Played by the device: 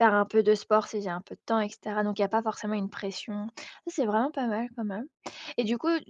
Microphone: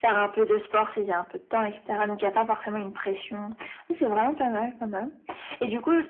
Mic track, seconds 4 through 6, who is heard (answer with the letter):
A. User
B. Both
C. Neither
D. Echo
D